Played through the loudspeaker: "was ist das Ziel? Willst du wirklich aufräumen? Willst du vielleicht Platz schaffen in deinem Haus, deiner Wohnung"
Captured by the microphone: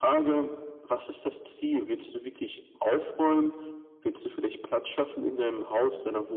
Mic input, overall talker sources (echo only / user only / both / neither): echo only